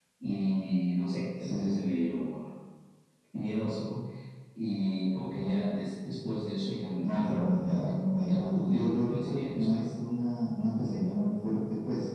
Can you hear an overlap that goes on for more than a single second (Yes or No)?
Yes